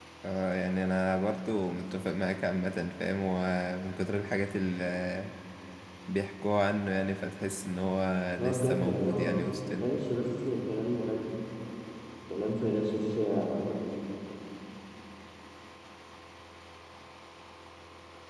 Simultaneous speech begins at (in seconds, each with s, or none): 8.4 s